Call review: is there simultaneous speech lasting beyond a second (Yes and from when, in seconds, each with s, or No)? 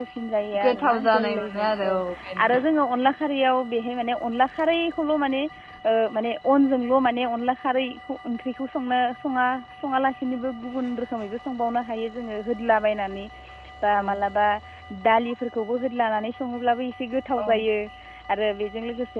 Yes, from 0.6 s